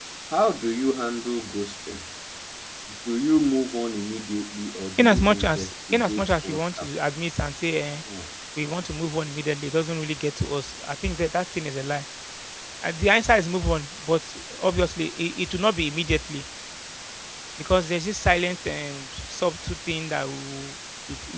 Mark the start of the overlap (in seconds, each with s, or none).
5.0 s